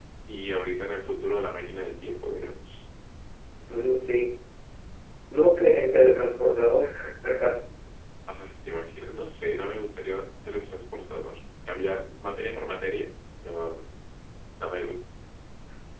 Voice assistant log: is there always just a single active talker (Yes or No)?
Yes